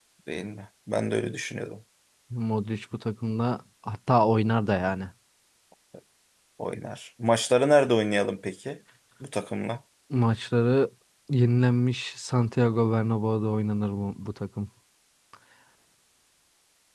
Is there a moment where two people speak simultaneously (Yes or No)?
No